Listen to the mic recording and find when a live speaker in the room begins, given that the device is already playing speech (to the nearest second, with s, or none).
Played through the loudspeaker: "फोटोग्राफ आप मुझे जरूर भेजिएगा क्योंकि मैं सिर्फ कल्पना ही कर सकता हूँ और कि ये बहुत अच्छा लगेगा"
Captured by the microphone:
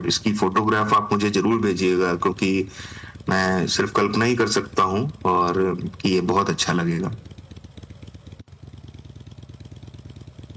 none